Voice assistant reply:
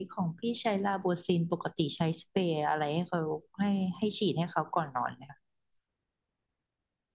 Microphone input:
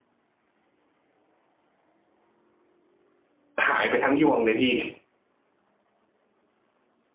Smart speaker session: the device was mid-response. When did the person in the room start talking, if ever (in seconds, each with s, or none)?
3.7 s